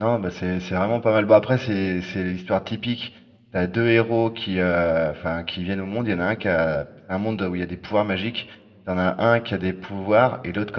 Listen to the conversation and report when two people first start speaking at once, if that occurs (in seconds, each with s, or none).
none